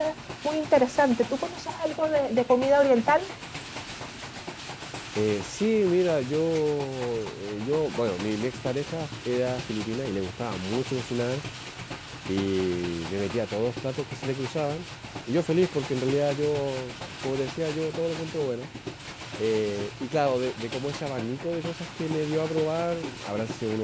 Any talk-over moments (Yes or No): No